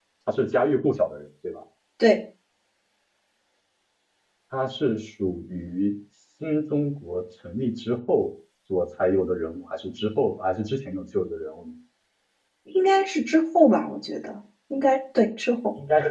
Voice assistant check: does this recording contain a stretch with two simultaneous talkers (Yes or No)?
No